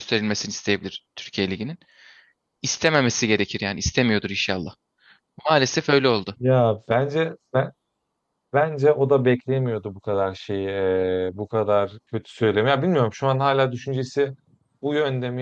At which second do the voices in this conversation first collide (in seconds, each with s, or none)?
none